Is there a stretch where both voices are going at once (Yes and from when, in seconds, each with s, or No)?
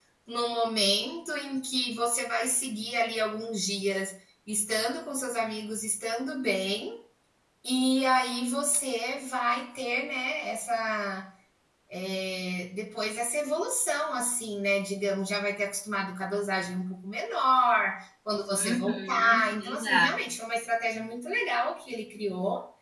Yes, from 18.6 s